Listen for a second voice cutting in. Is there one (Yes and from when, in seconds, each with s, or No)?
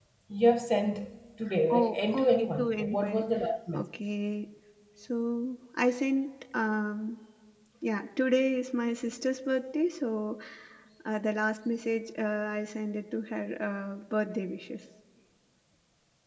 Yes, from 1.7 s